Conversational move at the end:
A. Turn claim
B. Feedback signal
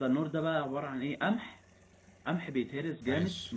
B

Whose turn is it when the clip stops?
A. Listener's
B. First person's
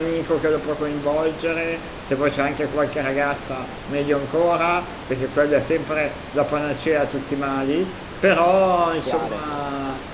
B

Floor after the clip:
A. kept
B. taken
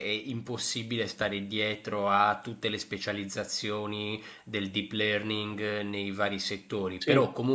A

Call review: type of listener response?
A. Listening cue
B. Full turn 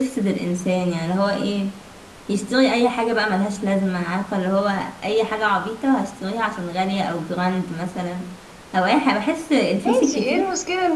B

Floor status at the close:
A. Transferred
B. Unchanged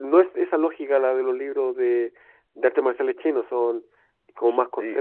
A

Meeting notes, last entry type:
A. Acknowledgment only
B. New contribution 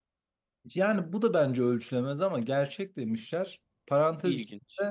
A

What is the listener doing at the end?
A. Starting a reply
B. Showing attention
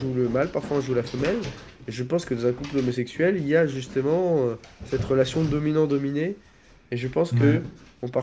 B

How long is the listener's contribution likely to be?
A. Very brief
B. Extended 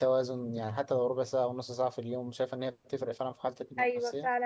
B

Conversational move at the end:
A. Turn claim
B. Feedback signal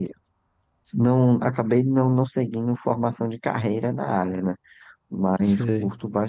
B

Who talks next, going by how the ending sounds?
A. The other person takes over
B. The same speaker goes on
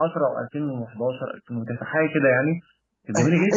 A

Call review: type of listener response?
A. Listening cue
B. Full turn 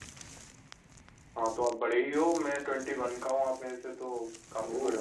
B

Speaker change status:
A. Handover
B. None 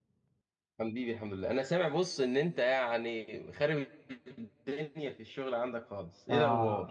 A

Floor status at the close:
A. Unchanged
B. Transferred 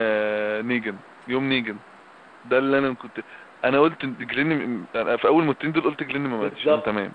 B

